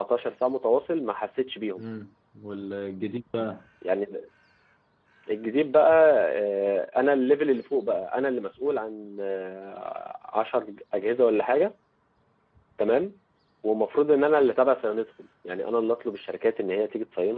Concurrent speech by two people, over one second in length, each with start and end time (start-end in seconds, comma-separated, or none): none